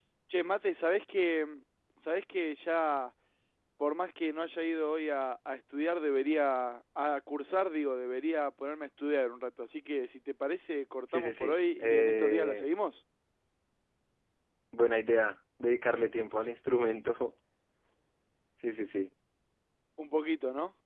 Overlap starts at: 11.1 s

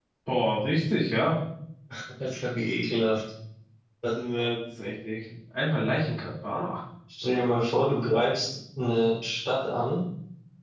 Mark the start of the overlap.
none

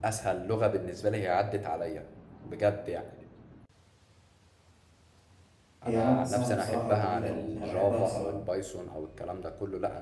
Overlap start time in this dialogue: 5.8 s

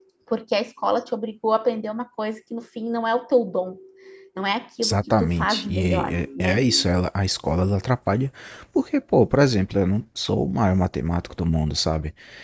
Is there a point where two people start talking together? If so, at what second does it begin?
4.8 s

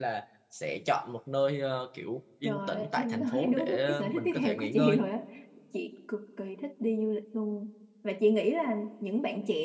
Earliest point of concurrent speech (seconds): 2.4 s

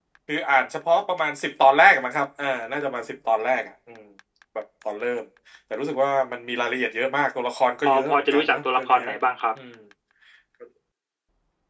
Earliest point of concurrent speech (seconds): 7.8 s

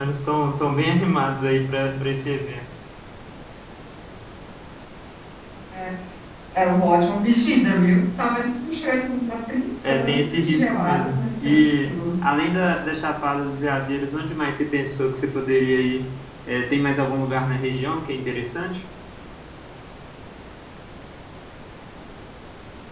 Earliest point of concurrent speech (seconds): 9.8 s

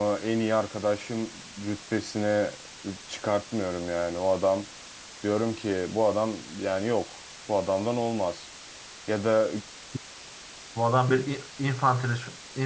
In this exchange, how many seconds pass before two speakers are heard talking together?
none

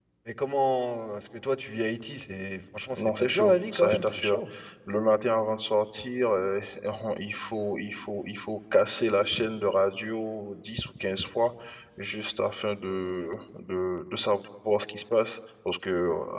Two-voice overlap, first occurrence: 2.9 s

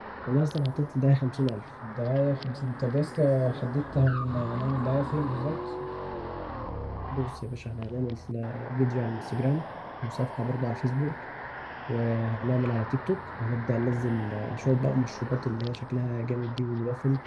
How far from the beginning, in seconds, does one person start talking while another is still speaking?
none

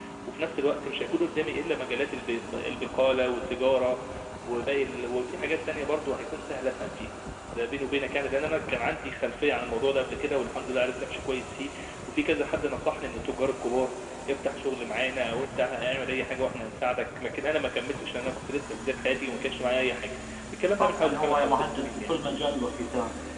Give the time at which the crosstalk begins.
20.8 s

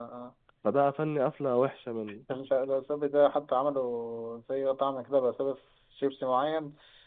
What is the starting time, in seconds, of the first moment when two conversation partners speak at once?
none

